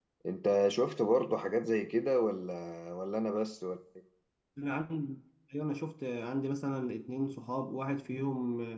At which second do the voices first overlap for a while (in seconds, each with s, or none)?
none